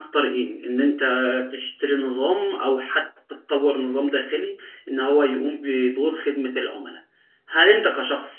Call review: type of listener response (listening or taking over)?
listening